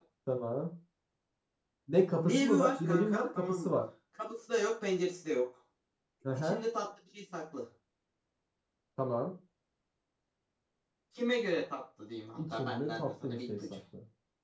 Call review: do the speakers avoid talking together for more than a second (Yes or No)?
No